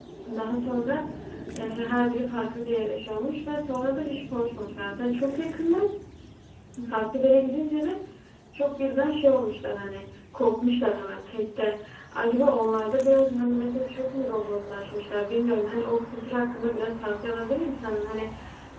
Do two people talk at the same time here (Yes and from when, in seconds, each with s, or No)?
No